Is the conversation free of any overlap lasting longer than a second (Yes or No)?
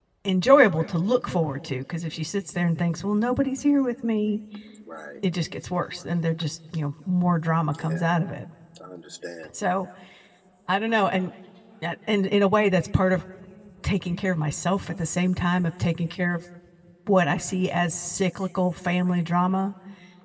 Yes